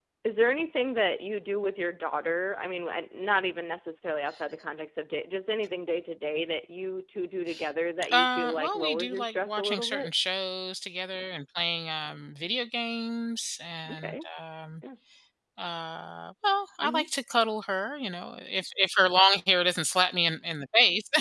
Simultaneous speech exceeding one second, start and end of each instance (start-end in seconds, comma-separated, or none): 8.1-10.1